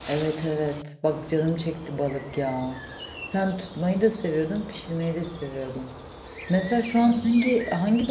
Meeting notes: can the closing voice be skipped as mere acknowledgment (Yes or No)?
Yes